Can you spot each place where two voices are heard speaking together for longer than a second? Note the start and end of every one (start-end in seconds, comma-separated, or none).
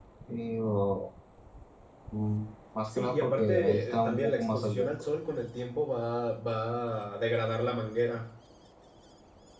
3.0-4.9